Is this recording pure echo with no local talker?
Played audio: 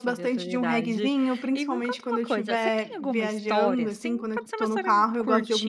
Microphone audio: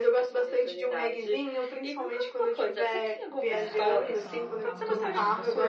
No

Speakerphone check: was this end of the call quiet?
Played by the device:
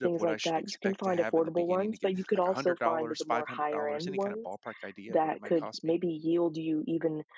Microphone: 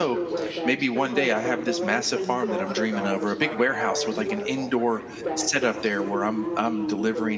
No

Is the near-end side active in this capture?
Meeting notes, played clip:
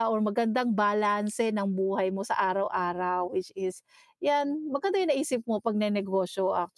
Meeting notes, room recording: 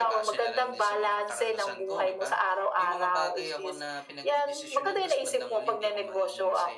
Yes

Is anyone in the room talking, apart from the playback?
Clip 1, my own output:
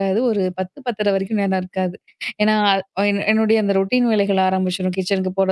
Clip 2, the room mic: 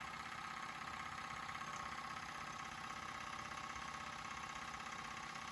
No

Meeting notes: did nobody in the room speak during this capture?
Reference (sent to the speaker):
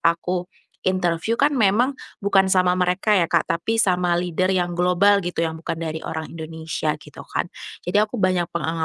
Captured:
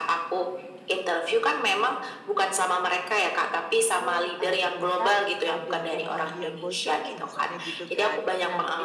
No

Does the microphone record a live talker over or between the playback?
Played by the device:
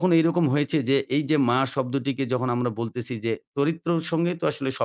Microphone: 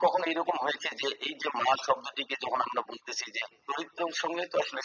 No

